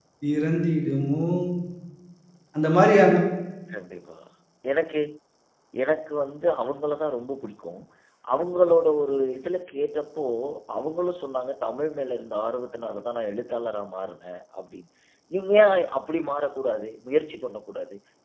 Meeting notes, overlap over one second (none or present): none